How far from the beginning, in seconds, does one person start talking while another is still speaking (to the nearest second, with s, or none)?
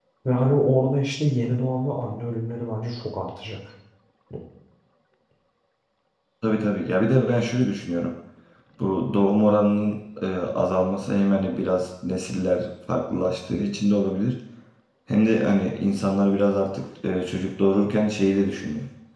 none